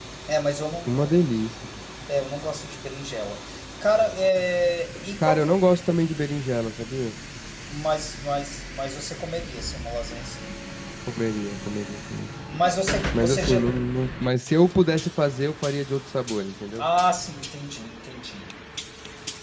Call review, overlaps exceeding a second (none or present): none